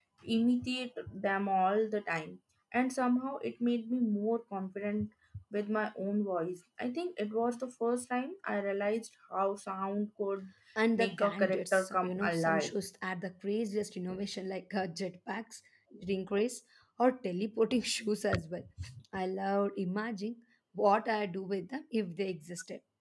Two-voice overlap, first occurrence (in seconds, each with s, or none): 10.9 s